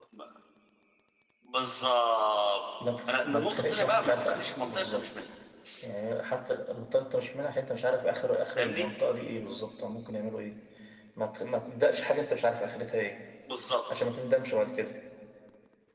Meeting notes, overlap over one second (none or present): present